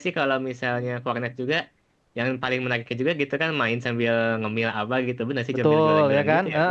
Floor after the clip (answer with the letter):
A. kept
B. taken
B